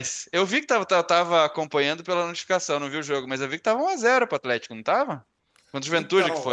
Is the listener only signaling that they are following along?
No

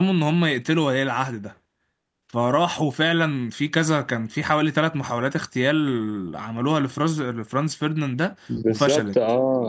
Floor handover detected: Yes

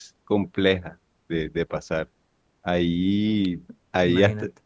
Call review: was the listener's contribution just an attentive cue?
Yes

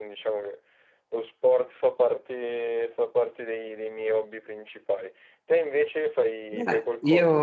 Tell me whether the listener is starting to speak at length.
Yes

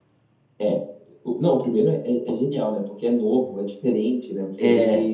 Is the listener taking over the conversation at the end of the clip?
No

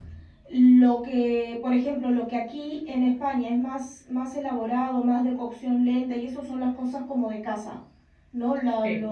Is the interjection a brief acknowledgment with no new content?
Yes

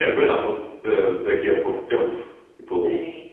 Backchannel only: Yes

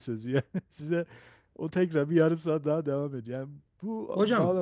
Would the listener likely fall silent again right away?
Yes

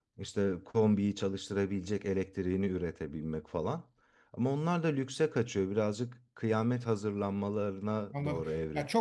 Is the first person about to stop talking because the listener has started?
Yes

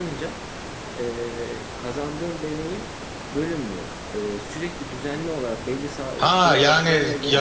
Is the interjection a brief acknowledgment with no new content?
No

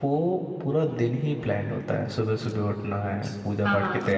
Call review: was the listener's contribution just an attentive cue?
Yes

